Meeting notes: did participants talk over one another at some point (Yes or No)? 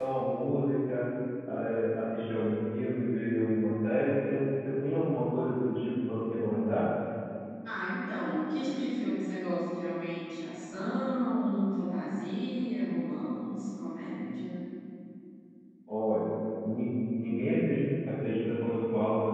No